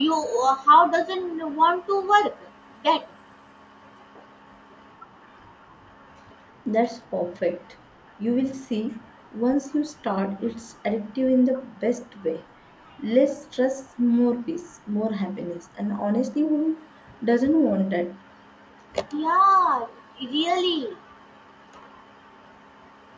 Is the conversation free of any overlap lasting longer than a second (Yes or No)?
Yes